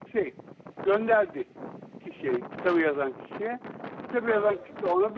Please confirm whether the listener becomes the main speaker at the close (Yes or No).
No